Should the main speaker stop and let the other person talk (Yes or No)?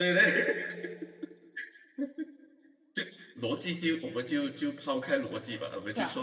No